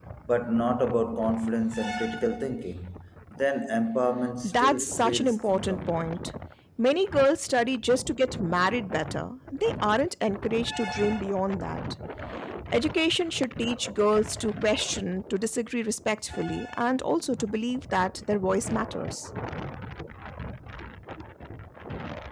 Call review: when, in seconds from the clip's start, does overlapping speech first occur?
4.4 s

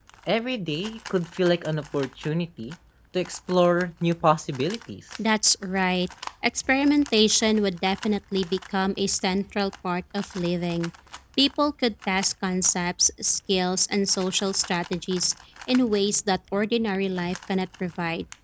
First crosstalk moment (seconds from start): none

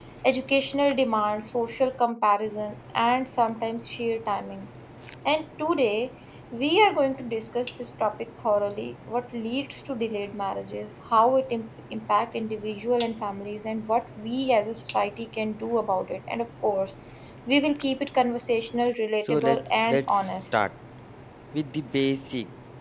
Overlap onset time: 19.2 s

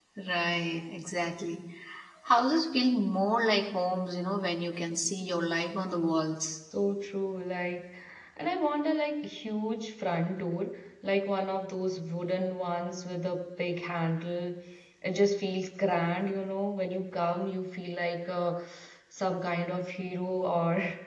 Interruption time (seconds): none

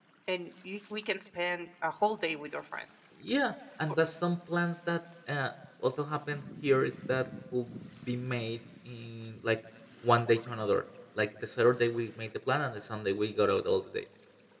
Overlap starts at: none

